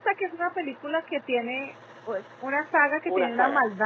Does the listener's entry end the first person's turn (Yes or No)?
No